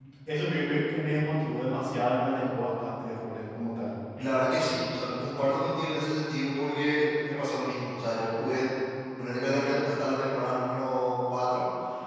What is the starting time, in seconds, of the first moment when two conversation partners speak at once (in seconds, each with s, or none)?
none